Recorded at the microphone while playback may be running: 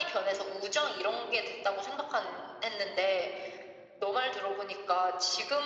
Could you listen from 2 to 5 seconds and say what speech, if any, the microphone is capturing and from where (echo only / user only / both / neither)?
echo only